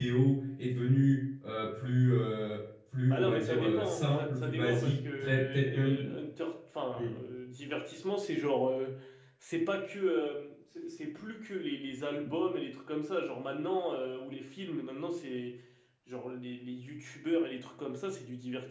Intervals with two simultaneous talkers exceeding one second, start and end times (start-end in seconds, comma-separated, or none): 3.1-6.1